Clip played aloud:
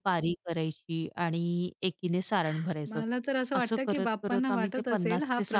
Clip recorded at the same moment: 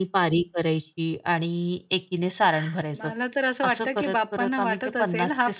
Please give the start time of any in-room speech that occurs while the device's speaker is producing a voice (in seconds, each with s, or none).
none